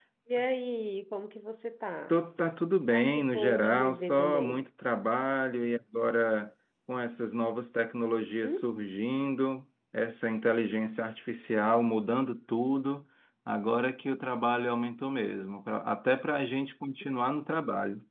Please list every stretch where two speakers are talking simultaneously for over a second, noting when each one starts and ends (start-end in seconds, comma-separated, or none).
2.9-4.7